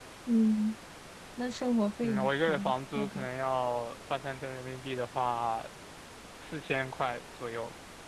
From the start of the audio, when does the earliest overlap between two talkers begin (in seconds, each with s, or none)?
2.0 s